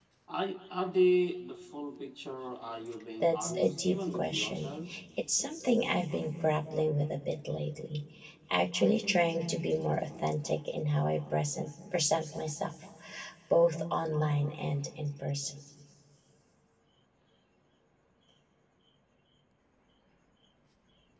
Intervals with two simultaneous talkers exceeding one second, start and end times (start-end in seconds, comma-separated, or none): 3.2-4.7